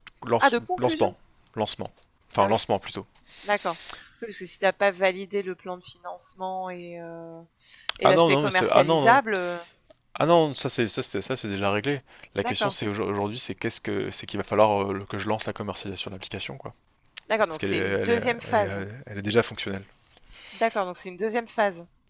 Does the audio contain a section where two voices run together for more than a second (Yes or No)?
Yes